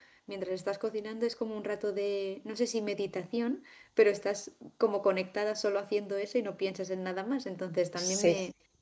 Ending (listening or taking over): listening